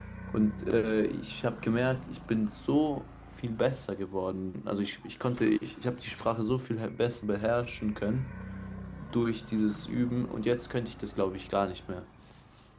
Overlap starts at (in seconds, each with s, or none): none